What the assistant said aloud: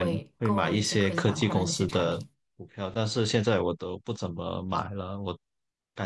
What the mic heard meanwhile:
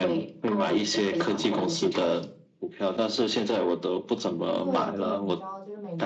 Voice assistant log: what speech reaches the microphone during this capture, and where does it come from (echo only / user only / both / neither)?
both